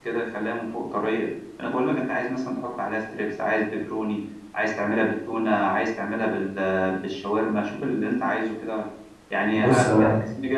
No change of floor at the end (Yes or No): Yes